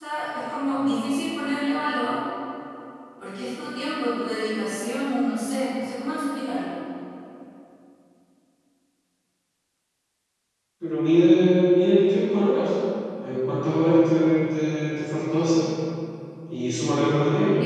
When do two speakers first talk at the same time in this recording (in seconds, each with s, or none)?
none